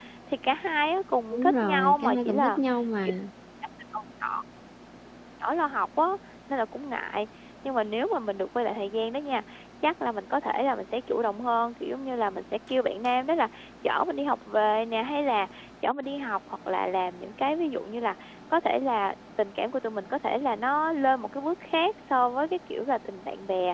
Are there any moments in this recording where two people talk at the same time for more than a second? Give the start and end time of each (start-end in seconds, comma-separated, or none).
1.3-2.6